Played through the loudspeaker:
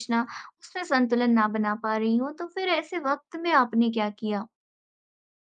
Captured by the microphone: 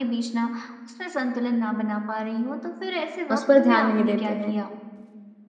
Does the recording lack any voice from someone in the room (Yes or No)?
No